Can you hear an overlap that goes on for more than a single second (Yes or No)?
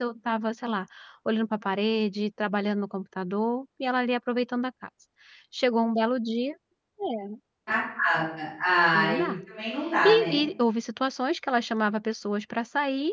No